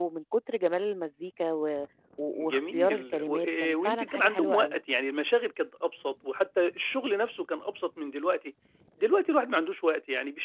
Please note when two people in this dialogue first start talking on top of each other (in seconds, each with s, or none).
2.3 s